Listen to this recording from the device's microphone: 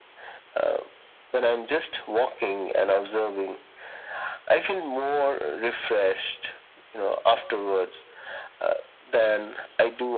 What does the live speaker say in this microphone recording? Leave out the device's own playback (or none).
none